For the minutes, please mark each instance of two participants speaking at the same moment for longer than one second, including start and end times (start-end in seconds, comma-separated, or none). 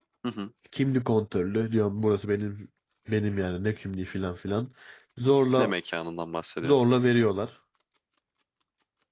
none